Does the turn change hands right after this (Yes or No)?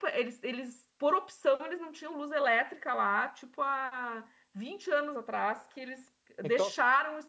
No